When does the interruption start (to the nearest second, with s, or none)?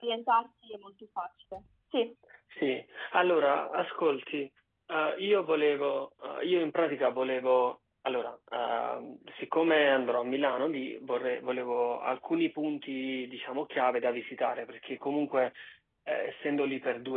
none